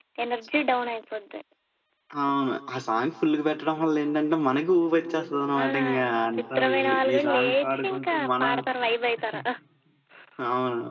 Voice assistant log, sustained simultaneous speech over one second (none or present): present